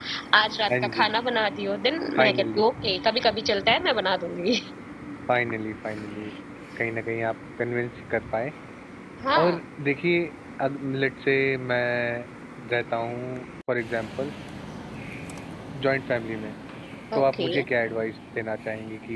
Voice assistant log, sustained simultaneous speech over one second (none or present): none